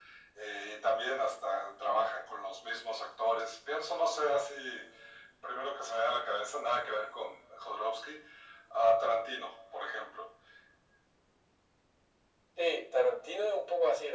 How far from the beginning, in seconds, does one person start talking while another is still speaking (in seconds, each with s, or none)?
none